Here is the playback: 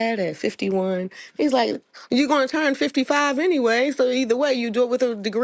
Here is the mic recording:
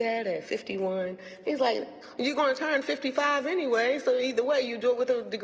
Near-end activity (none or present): none